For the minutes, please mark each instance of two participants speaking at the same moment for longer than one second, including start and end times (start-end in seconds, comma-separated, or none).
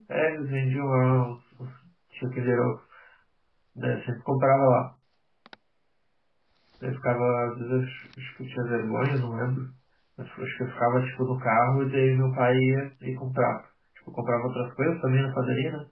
none